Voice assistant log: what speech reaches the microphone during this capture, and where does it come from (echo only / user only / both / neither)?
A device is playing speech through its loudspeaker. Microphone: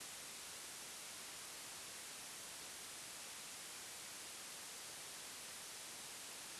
neither